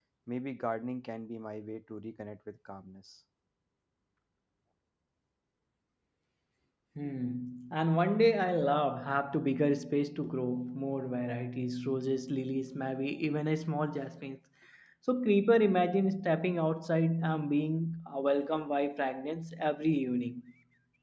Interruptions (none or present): none